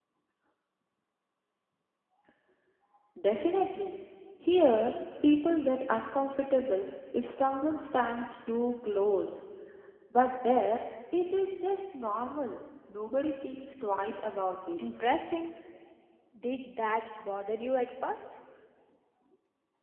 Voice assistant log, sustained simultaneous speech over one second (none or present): none